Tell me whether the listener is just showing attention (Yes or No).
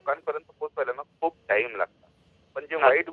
Yes